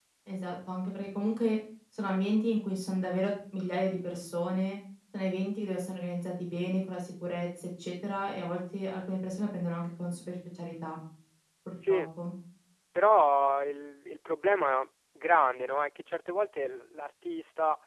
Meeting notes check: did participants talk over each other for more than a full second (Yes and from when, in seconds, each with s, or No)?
No